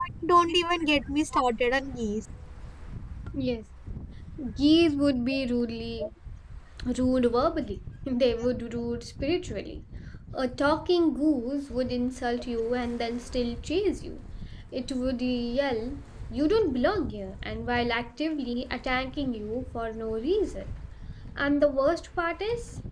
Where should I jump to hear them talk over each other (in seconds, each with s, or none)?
none